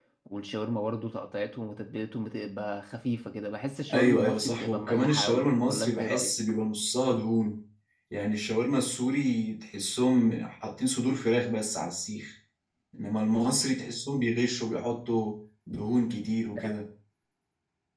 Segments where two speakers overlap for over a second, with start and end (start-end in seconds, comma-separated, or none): 3.9-6.3